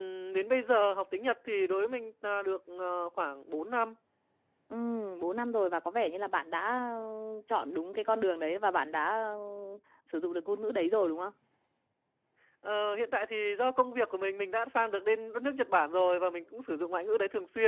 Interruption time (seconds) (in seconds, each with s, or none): none